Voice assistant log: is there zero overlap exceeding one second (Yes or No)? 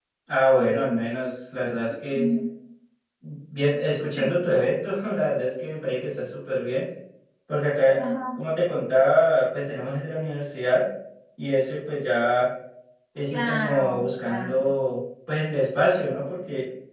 No